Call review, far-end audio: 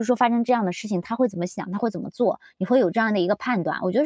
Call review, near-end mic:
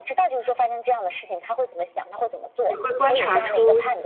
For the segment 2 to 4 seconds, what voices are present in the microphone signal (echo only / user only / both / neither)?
both